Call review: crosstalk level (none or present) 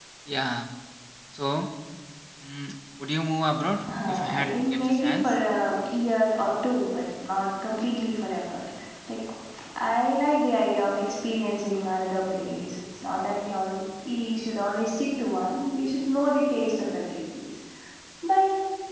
present